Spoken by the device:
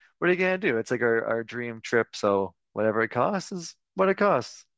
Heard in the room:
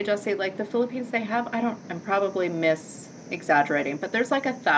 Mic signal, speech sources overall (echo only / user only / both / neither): user only